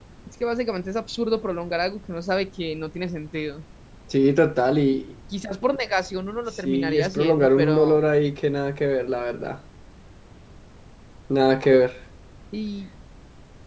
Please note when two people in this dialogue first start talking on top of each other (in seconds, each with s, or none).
6.6 s